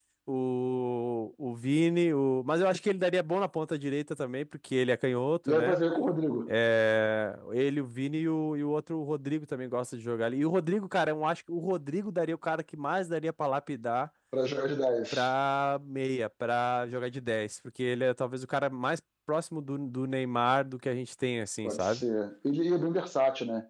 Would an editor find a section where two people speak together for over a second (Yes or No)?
No